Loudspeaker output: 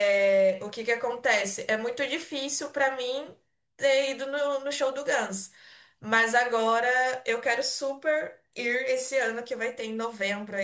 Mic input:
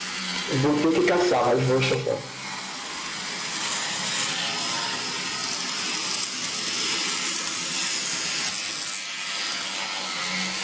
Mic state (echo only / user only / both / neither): user only